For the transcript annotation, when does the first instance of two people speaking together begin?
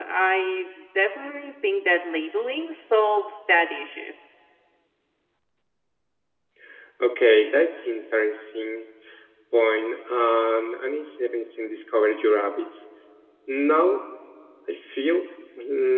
none

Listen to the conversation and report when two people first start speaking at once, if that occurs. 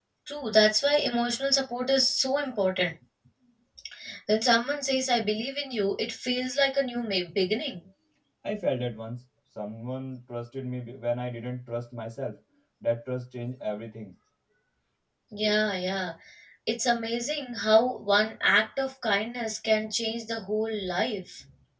none

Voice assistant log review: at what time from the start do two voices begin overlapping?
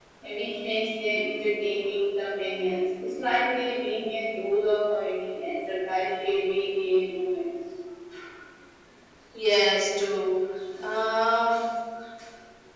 none

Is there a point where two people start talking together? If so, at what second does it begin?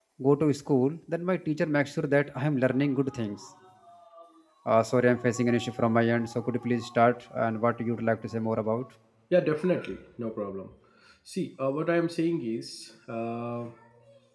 none

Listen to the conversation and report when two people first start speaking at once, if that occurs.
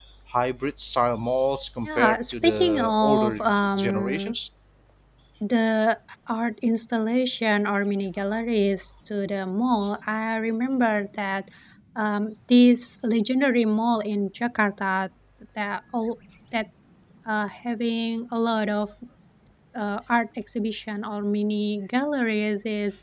1.9 s

